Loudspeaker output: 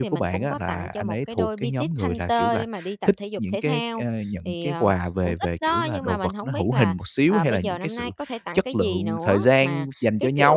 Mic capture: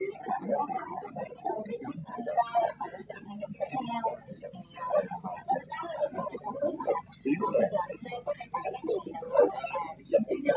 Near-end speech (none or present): none